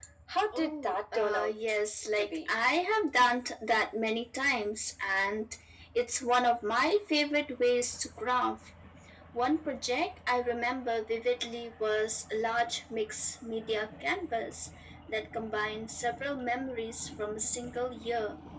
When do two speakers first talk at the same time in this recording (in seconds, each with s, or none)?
0.5 s